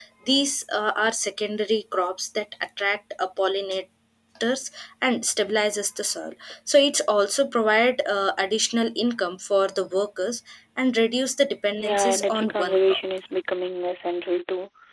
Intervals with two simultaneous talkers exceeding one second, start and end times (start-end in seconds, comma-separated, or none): 11.8-13.0